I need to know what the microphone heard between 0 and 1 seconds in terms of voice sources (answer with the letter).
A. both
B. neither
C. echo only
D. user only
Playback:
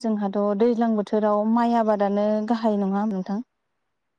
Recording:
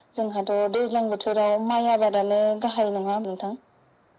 C